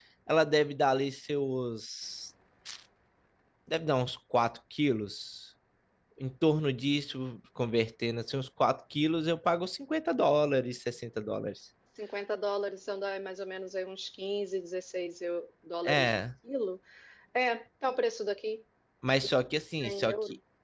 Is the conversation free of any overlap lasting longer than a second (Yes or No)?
Yes